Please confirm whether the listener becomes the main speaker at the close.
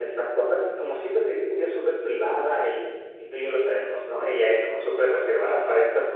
No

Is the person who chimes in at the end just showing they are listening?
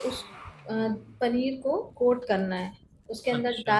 Yes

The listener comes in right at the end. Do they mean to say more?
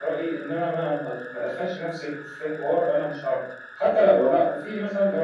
No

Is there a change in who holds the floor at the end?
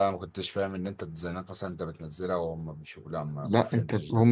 Yes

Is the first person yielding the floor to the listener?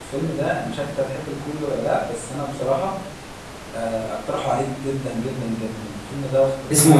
Yes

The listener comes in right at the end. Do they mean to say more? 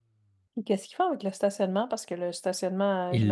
Yes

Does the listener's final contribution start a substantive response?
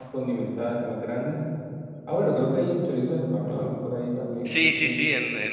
Yes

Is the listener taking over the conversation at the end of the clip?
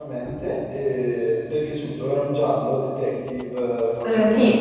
Yes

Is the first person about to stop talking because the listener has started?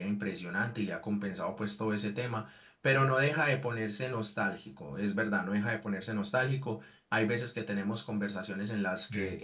No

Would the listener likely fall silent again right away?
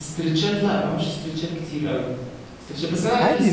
Yes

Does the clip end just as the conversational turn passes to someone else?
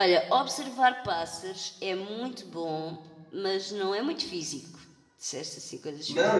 Yes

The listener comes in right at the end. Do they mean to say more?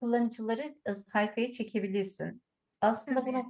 No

